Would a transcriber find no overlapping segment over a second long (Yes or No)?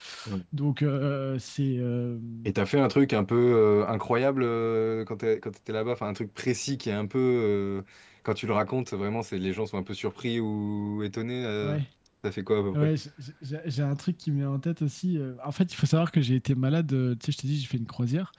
Yes